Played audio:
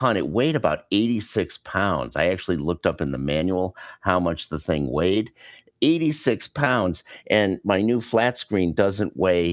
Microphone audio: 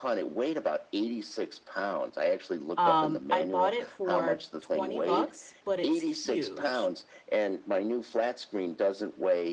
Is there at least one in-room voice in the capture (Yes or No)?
Yes